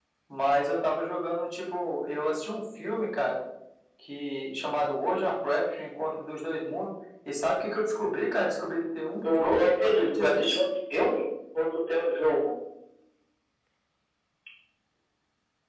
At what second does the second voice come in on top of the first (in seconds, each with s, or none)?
9.2 s